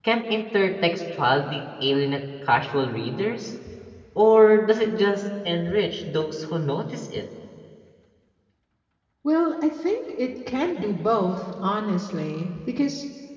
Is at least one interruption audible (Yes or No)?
No